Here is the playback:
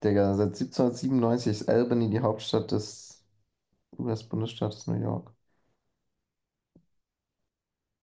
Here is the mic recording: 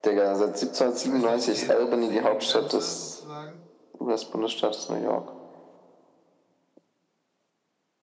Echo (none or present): present